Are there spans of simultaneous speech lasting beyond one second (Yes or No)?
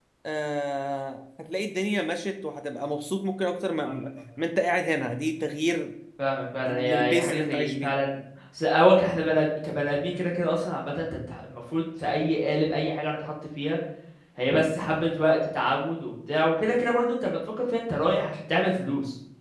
Yes